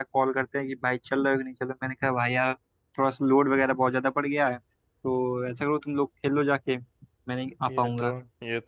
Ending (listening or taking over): taking over